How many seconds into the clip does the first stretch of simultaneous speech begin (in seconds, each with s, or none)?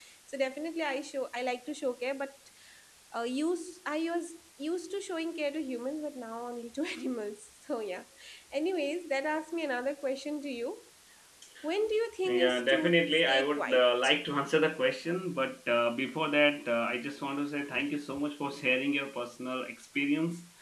12.2 s